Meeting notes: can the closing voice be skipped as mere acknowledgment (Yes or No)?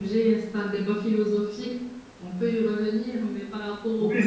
No